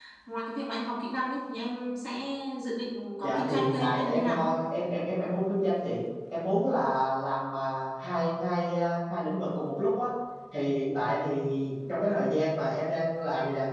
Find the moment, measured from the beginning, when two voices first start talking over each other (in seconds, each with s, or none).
3.2 s